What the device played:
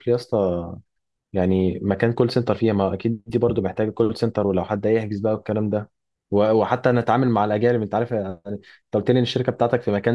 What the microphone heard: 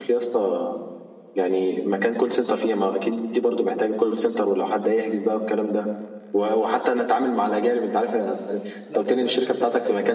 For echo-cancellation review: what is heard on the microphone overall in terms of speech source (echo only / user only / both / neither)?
both